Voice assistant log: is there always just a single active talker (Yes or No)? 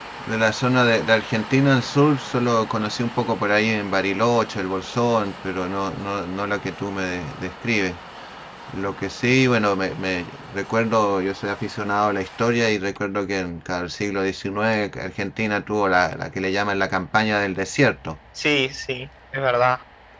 Yes